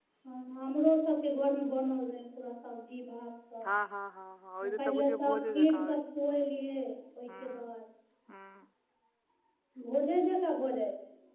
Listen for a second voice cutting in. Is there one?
Yes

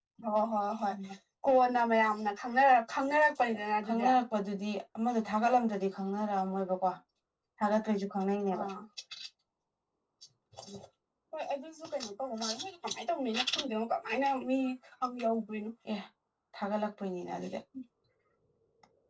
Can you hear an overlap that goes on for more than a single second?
No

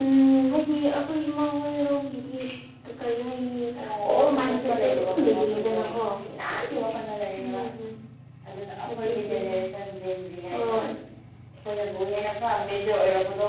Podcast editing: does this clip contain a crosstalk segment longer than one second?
Yes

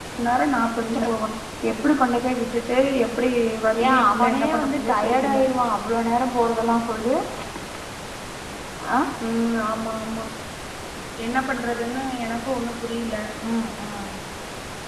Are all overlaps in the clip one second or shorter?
No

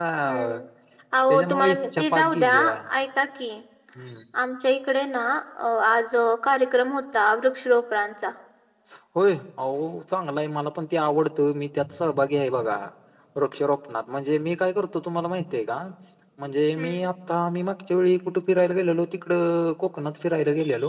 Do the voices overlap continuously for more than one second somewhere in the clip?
Yes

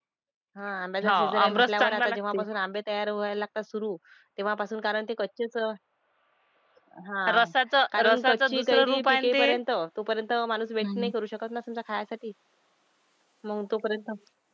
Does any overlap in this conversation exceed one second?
Yes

